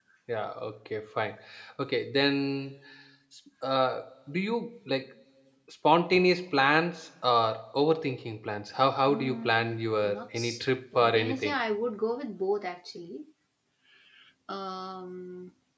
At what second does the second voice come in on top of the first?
9.0 s

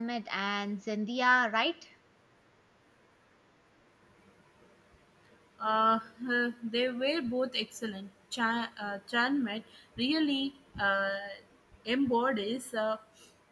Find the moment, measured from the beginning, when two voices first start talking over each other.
none

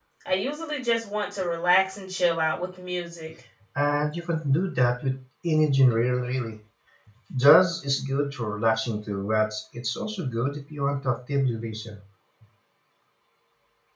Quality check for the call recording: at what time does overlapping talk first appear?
none

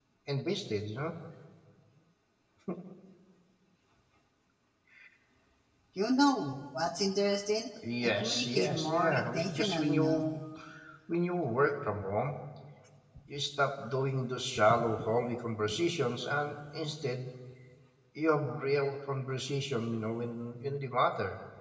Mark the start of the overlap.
8.0 s

